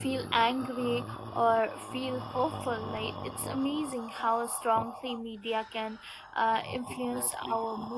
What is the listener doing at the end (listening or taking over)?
listening